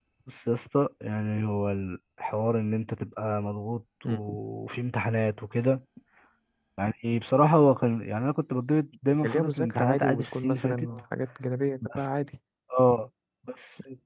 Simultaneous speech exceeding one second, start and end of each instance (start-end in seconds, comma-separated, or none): 9.2-10.9